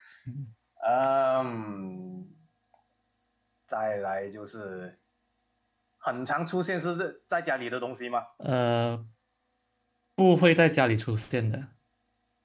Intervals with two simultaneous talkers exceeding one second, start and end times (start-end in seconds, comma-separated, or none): none